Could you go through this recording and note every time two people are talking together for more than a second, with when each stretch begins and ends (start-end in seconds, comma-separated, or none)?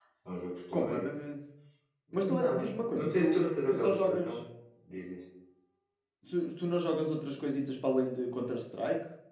2.1-4.4